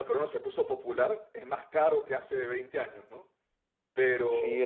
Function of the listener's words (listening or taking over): taking over